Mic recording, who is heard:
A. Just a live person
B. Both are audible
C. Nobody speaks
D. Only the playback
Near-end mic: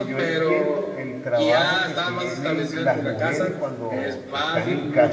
B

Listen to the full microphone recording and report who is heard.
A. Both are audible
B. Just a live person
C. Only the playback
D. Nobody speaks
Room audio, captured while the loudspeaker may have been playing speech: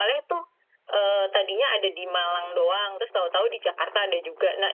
C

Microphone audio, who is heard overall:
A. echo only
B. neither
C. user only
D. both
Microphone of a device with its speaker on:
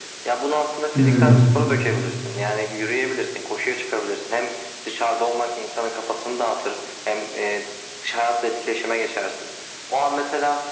D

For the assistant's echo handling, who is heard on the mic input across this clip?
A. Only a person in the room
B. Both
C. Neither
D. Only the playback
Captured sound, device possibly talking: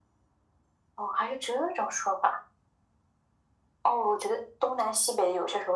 D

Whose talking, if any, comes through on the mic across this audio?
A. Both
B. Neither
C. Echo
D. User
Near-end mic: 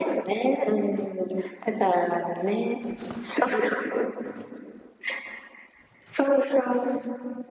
C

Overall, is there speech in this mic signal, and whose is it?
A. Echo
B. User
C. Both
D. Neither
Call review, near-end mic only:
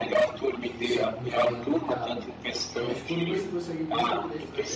C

